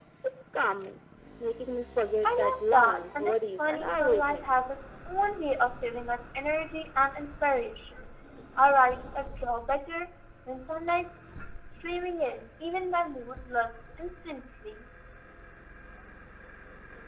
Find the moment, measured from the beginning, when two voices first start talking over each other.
2.2 s

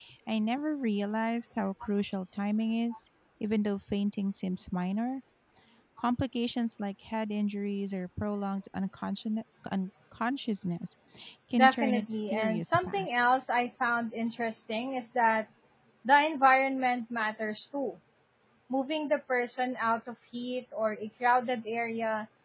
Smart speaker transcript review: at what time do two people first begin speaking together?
11.5 s

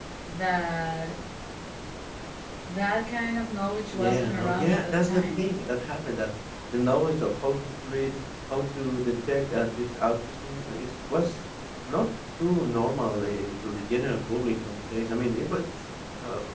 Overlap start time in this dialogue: 3.9 s

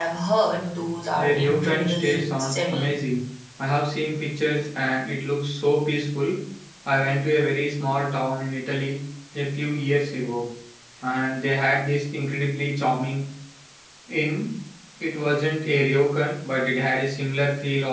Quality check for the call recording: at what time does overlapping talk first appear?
1.1 s

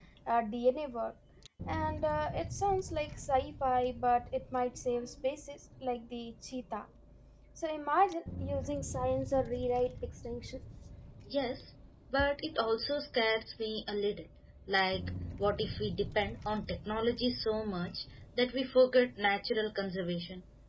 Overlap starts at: none

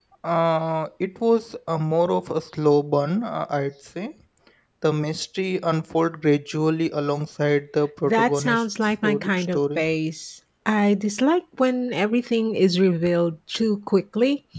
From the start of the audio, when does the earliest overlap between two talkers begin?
8.0 s

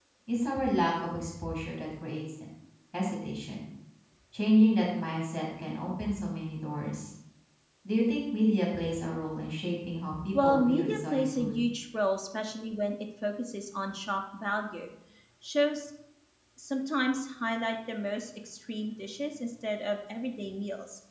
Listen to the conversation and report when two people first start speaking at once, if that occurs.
10.3 s

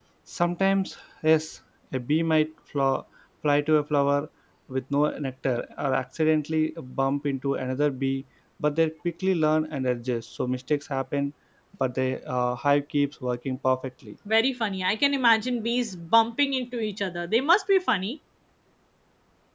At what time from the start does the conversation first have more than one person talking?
none

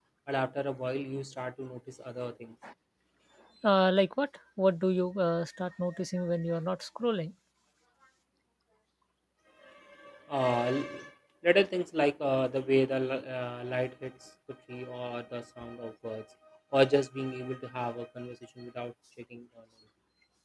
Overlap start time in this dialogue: none

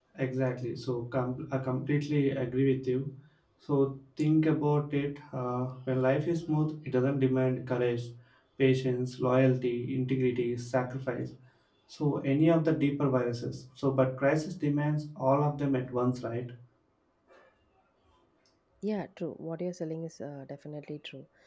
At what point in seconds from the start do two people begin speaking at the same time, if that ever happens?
none

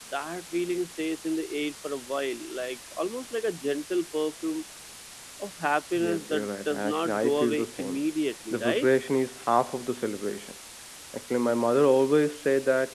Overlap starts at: 6.0 s

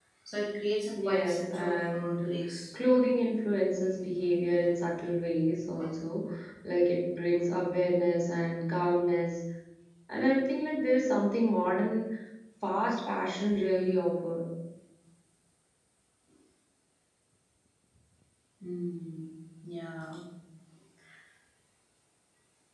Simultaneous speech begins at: 1.0 s

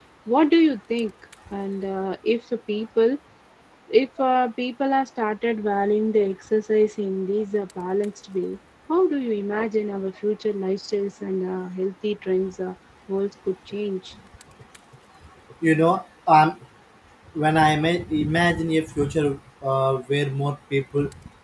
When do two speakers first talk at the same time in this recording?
none

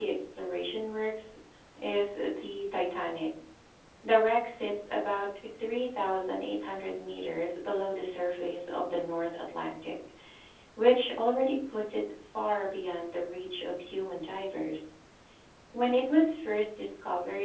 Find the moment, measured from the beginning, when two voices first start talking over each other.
none

